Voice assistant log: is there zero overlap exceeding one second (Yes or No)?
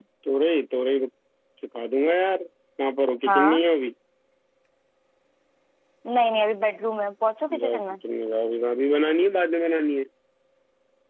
Yes